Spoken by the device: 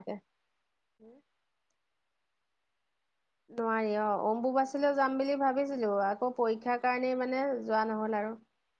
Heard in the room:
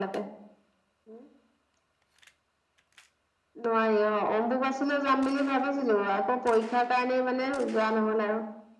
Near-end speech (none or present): none